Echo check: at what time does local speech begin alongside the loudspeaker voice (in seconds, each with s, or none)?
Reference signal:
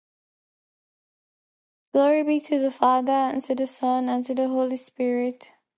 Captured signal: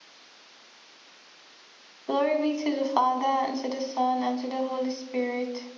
none